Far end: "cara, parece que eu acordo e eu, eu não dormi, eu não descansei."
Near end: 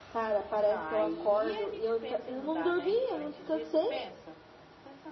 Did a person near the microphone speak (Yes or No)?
Yes